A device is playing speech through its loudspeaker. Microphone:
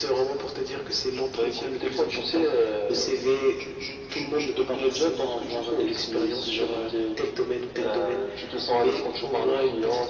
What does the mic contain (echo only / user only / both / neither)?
echo only